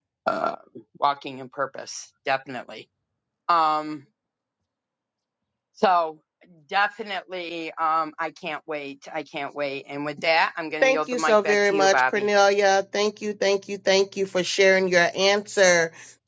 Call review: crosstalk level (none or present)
present